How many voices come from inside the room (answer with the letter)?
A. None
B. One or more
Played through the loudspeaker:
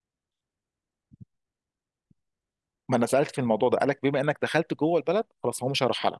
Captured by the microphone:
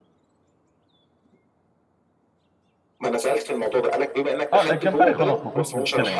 B